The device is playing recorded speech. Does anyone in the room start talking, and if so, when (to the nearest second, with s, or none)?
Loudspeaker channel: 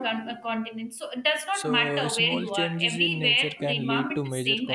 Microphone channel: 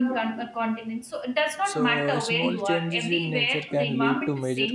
none